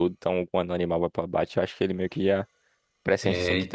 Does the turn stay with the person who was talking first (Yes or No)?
Yes